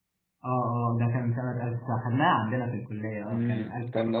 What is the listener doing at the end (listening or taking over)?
taking over